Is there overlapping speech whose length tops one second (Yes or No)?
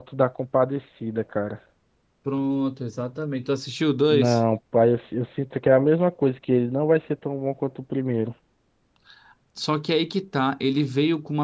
No